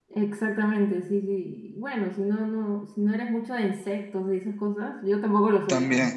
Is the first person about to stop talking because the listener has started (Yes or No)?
No